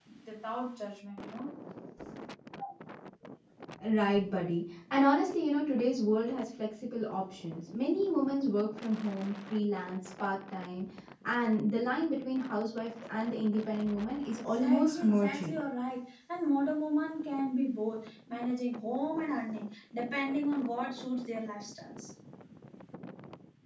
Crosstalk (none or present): present